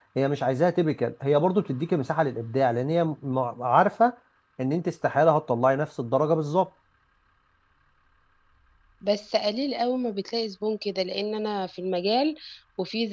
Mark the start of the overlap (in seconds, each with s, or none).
none